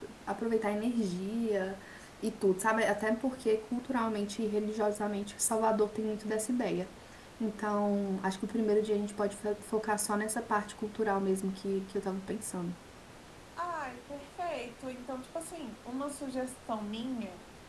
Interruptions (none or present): none